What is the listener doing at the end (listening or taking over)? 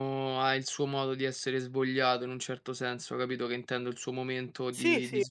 listening